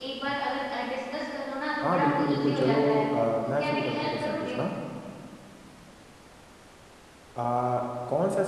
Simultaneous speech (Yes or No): Yes